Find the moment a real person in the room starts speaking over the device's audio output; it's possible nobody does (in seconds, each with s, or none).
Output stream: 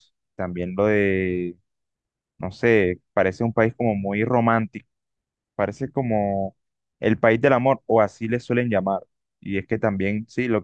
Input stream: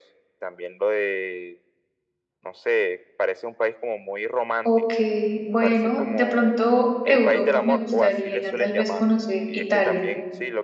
4.6 s